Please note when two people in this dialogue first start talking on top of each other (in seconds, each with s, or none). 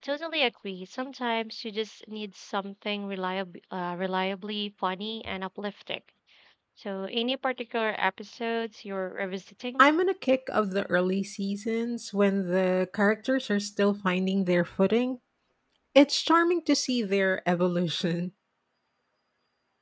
none